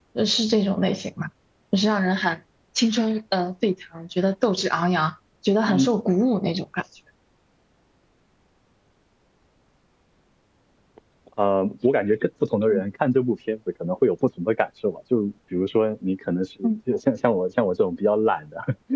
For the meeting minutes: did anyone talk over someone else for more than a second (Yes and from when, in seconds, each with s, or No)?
No